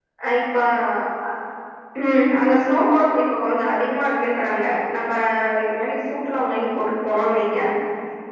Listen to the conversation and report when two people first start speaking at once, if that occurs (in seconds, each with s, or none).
none